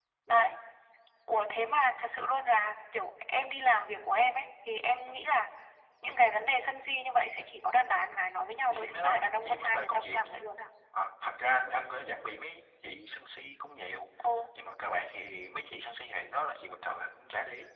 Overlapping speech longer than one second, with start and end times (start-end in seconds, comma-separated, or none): 8.7-10.3